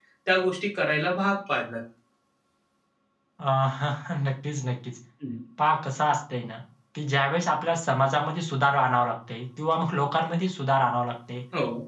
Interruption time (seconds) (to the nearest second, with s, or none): none